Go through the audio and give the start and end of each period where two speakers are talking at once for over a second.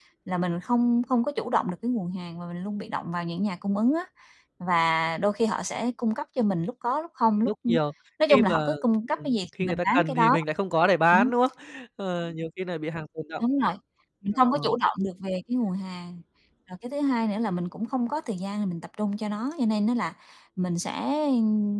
8.3-10.3

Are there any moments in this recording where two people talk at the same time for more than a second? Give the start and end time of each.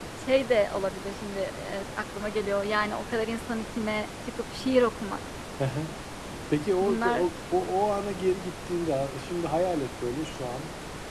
none

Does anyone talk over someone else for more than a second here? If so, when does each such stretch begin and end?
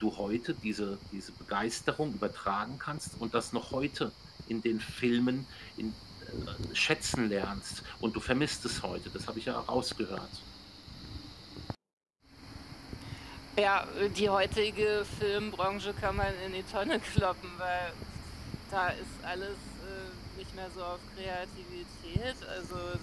none

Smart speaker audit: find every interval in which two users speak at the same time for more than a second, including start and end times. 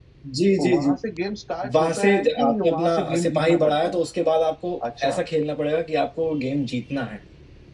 1.8-4.0

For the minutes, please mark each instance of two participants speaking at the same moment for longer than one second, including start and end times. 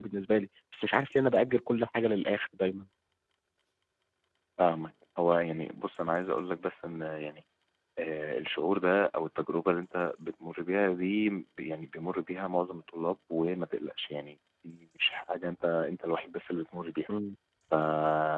none

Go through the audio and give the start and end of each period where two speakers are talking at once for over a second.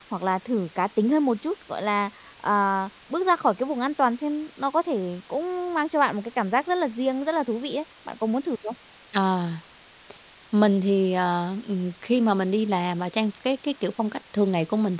none

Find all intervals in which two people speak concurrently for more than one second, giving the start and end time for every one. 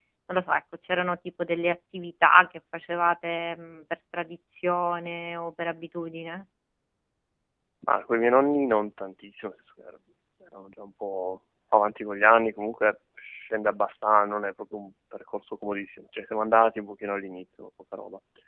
none

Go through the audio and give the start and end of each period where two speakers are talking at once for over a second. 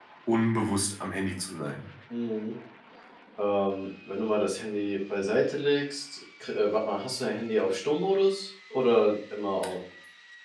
none

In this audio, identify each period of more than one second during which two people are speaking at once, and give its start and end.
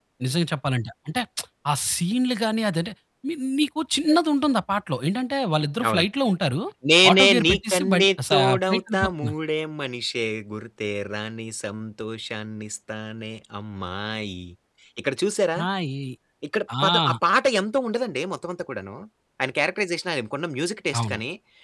7.1-9.3

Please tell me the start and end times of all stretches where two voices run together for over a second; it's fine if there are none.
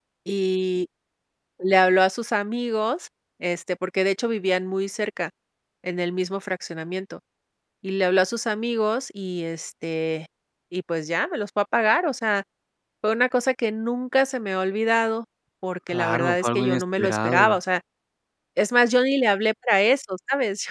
15.9-17.6

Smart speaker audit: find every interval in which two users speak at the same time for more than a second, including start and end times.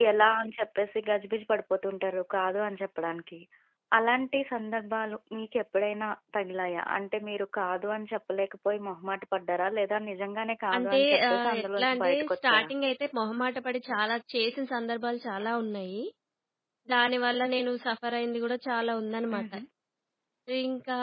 10.8-12.7

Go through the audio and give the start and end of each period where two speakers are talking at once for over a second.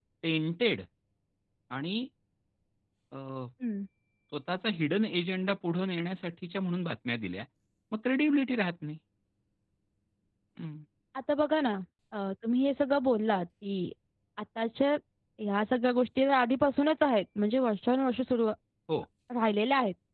none

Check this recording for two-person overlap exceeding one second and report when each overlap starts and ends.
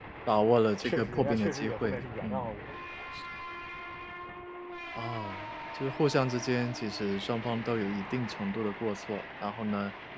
0.8-2.5

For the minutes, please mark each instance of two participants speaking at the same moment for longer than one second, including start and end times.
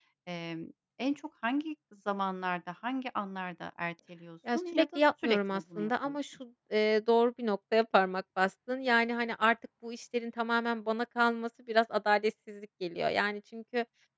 4.5-6.2

